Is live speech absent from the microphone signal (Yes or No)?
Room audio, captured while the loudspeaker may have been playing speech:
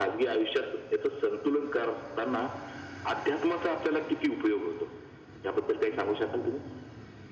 Yes